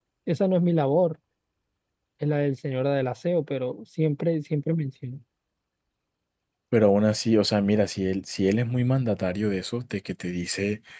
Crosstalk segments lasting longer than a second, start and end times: none

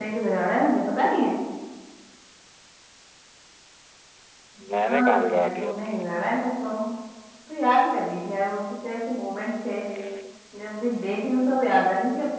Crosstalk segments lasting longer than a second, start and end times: 4.8-6.1

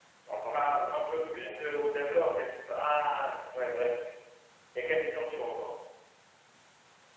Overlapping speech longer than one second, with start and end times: 0.5-1.8

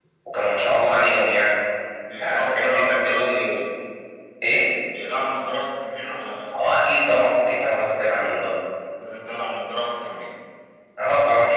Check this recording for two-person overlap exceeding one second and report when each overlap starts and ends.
2.2-3.6

